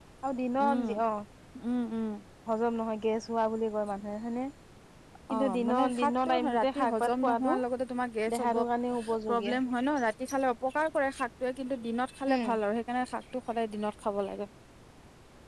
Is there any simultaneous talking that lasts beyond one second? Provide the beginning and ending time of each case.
5.3-7.6

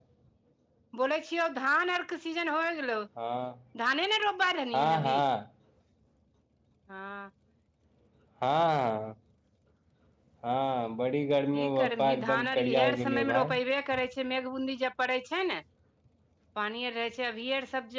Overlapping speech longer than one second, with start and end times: 11.5-13.5

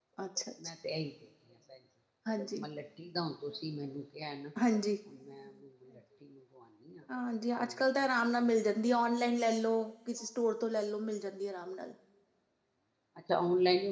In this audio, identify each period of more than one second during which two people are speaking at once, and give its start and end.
none

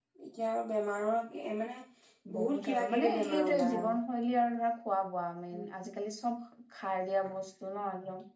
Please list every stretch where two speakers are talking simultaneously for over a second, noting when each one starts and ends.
2.4-3.8

